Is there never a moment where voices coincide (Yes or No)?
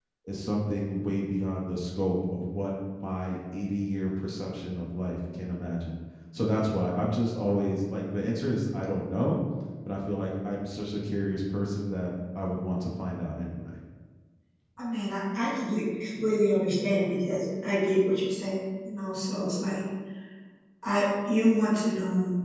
Yes